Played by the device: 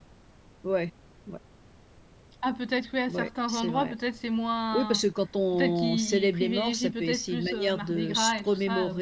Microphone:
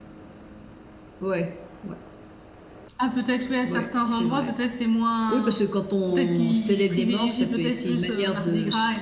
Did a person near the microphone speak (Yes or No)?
No